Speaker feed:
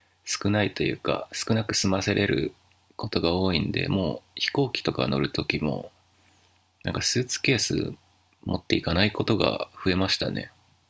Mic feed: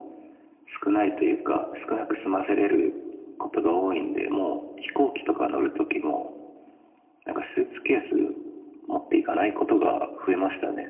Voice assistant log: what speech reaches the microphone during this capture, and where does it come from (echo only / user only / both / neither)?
echo only